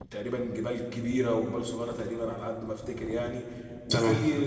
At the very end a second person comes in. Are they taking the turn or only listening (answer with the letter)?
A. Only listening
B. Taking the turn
A